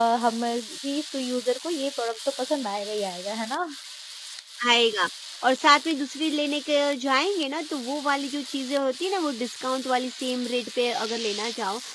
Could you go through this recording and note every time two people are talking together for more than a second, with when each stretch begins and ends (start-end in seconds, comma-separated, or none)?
none